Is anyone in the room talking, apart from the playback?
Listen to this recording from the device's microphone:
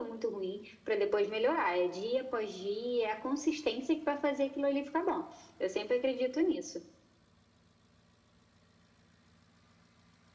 No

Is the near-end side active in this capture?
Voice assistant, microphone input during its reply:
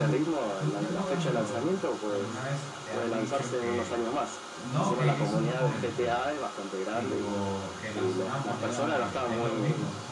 Yes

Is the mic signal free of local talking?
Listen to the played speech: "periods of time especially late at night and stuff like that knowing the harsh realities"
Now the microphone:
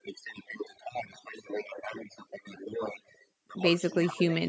No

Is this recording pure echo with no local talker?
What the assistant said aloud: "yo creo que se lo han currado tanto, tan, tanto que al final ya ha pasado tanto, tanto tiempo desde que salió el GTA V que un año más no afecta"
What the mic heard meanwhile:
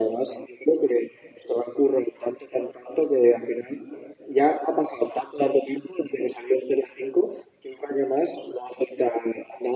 Yes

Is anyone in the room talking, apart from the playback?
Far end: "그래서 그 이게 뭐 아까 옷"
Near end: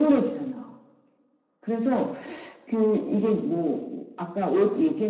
No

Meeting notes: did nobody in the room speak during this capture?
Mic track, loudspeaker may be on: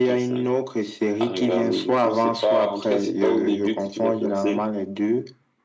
Yes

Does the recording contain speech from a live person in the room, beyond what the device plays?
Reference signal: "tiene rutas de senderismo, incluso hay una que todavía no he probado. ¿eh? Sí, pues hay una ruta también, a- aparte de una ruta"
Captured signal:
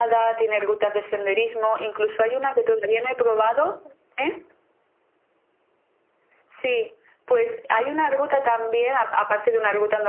No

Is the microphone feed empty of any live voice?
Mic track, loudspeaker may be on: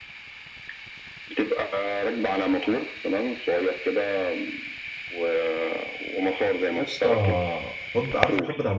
No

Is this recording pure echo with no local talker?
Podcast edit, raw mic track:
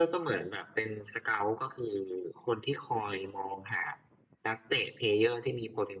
Yes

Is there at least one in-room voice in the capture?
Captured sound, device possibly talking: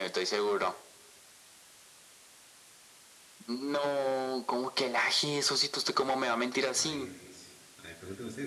Yes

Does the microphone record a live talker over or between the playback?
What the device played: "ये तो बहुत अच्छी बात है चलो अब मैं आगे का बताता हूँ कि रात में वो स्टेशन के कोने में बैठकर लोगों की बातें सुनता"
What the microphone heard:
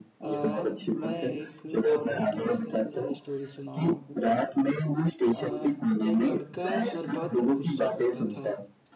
Yes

